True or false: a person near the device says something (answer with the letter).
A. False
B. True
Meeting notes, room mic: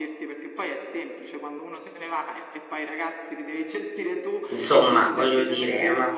B